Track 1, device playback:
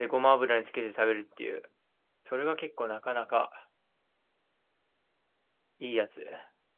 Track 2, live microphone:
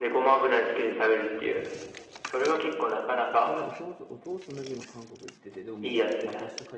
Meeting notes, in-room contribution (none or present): present